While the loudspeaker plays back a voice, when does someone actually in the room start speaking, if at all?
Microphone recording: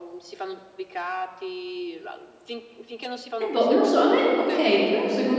3.4 s

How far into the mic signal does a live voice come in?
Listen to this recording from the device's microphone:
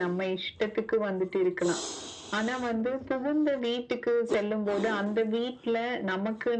none

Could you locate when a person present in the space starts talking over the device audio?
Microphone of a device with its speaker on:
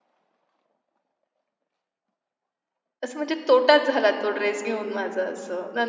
3.0 s

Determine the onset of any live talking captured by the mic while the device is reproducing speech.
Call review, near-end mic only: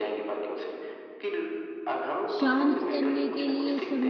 2.4 s

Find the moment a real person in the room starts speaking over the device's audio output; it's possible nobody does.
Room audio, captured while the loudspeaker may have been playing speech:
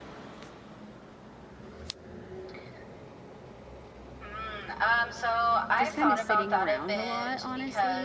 5.8 s

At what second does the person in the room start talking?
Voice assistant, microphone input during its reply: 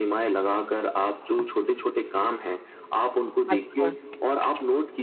3.5 s

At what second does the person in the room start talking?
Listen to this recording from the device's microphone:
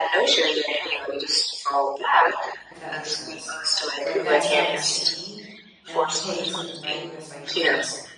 2.7 s

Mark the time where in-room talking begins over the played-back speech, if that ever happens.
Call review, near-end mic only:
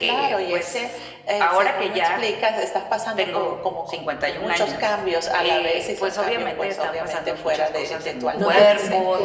8.3 s

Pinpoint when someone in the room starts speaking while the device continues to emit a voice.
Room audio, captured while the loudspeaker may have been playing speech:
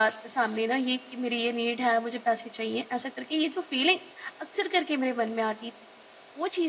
none

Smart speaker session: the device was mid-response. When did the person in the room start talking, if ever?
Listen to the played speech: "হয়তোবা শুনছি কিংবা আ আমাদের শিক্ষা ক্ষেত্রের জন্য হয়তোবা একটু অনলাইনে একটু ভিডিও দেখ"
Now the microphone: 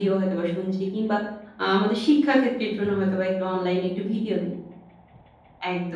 none

